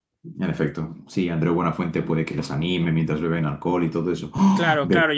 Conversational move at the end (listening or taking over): taking over